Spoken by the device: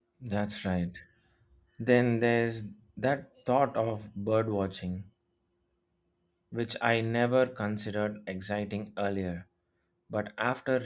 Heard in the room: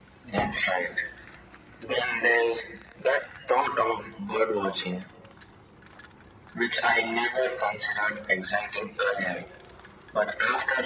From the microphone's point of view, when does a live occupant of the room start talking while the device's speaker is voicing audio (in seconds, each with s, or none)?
none